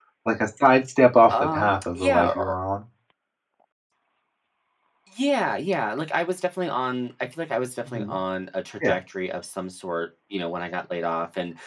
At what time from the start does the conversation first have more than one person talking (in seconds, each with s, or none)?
1.3 s